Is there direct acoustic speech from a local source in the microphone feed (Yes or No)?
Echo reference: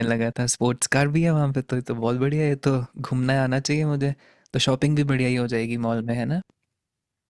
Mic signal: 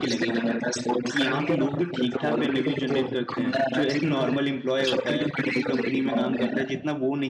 Yes